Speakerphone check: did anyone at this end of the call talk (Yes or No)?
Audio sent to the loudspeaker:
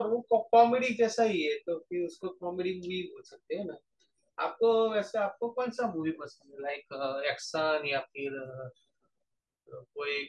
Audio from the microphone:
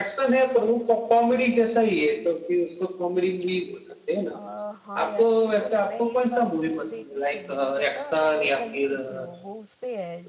Yes